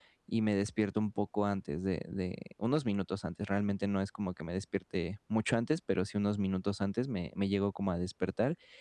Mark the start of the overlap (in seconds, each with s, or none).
none